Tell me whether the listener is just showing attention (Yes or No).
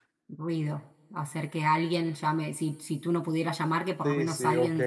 No